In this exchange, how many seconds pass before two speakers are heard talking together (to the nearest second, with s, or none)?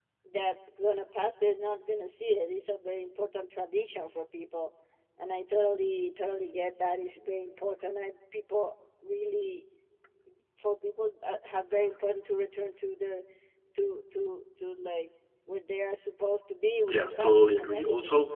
17 s